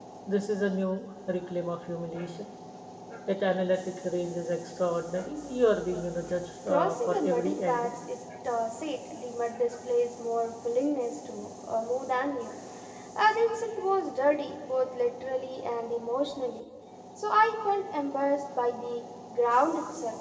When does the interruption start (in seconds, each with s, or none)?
6.7 s